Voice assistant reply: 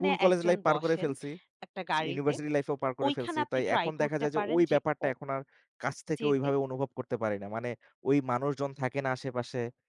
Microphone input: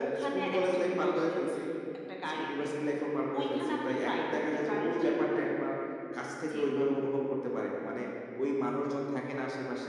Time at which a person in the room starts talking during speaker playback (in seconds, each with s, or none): none